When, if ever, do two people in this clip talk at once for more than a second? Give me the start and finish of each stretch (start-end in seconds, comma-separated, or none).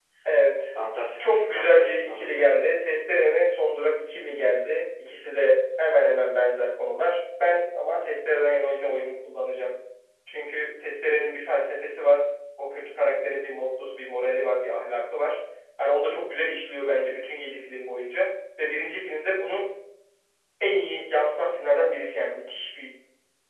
1.2-2.5